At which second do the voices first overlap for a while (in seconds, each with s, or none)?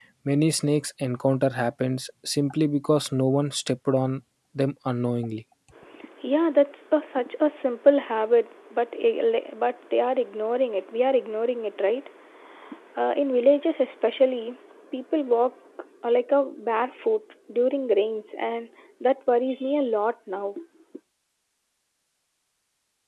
none